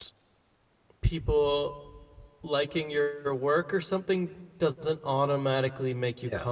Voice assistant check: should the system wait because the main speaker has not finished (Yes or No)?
Yes